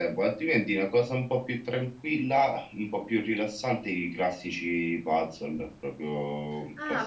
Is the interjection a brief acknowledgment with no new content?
No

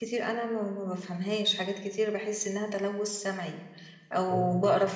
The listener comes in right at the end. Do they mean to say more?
No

